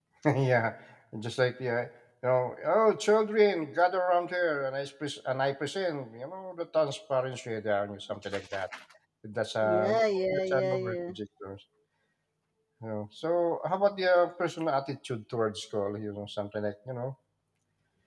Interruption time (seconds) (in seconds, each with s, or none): 9.6 s